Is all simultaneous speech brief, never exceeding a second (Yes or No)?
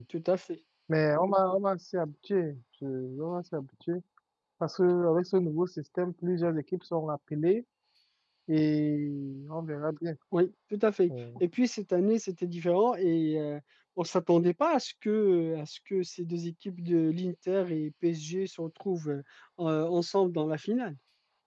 Yes